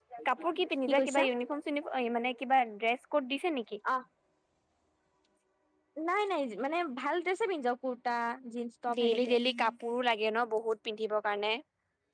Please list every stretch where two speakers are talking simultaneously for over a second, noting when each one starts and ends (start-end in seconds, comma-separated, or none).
none